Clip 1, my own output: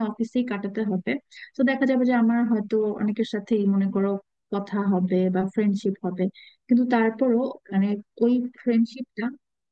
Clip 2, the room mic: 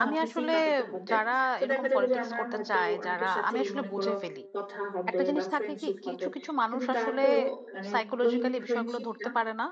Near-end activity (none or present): present